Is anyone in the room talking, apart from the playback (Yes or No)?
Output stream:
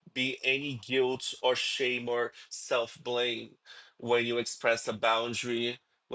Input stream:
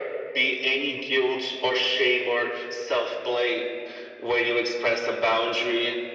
No